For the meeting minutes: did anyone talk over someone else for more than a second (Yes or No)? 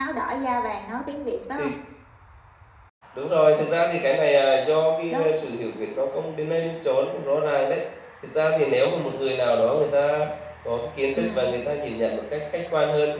No